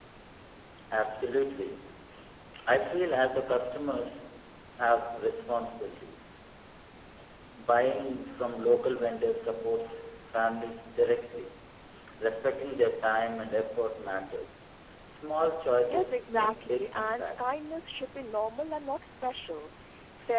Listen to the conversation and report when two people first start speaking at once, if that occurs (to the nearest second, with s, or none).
16 s